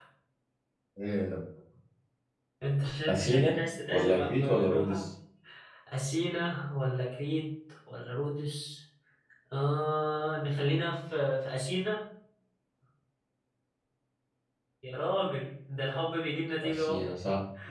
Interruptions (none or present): present